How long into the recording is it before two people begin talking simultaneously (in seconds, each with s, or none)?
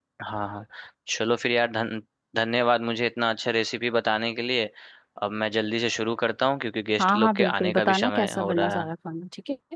7.0 s